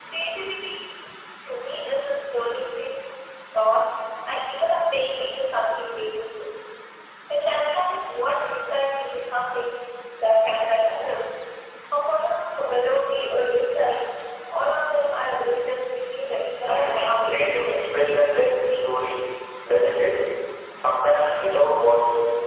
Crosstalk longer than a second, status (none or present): present